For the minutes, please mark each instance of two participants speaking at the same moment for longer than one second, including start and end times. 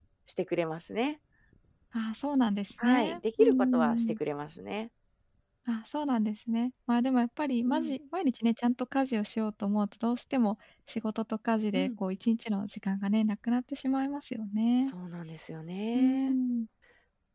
2.8-4.1

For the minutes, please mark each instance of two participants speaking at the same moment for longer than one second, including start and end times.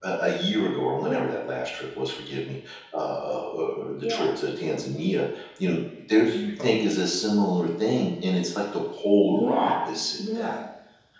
9.2-10.6

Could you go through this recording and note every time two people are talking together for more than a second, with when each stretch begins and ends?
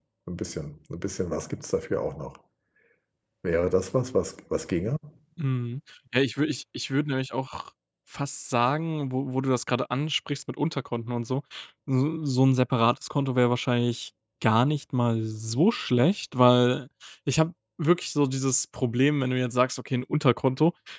none

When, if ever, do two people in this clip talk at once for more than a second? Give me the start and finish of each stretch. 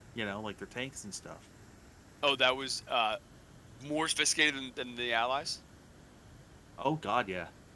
none

